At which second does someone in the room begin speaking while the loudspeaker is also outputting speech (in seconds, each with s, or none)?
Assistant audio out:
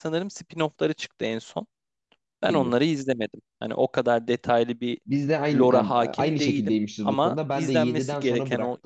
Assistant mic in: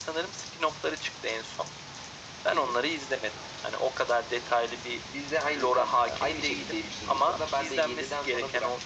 none